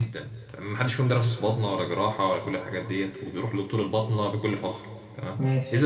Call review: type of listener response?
listening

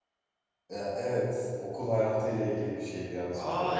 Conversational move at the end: taking over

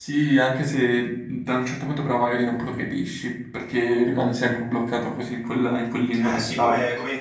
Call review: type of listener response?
taking over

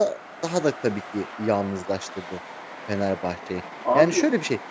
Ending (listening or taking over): listening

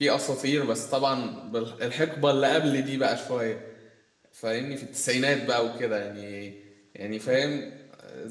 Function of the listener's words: listening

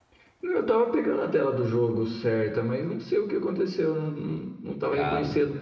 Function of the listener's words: listening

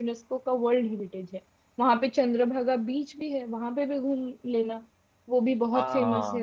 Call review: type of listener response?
taking over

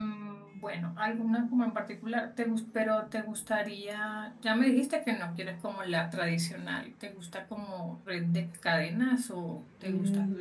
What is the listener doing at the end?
taking over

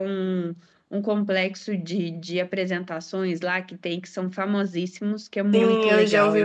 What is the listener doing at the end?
taking over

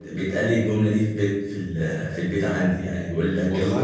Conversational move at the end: listening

